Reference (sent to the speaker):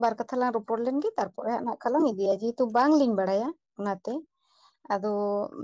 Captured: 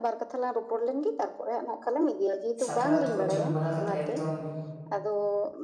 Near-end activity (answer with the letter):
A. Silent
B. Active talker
B